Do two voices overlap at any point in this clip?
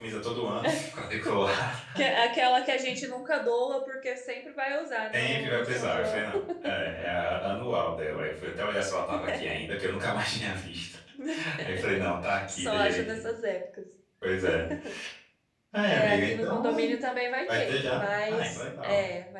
Yes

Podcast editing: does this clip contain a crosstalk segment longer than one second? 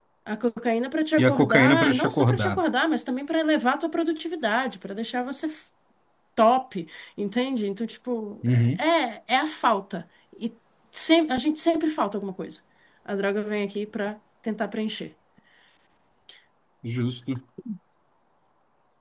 Yes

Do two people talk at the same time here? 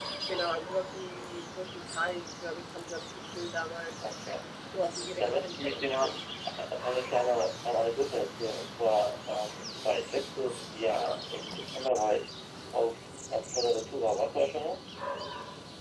Yes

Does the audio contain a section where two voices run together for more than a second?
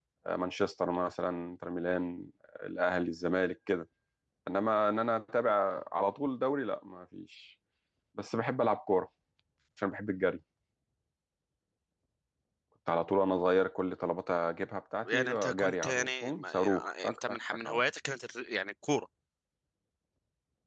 Yes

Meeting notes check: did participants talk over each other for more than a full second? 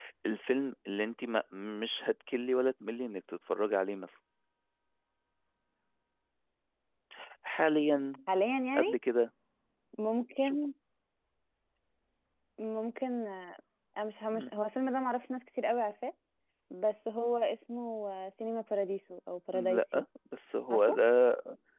No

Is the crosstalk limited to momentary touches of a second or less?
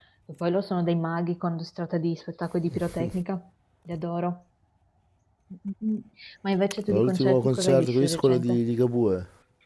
No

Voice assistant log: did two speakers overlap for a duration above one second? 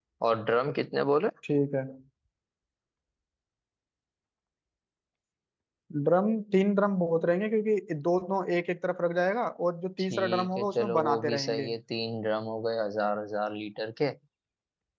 Yes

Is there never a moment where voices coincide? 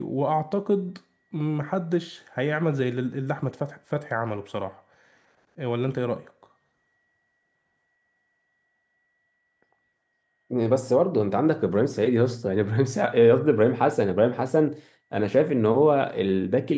Yes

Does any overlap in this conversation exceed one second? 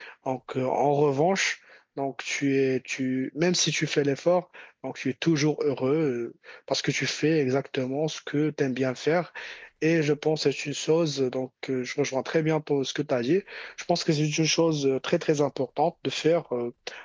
No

